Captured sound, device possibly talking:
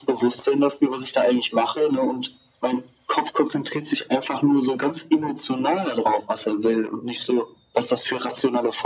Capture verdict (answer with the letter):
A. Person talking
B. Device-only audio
B